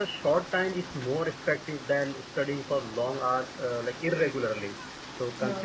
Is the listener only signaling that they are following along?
Yes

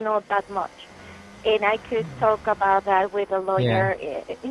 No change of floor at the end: Yes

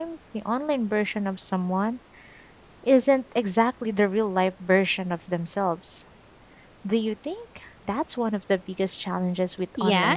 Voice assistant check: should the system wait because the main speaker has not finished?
No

